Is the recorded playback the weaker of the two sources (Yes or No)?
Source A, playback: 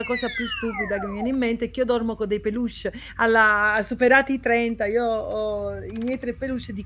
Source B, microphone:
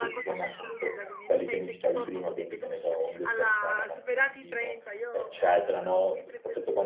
Yes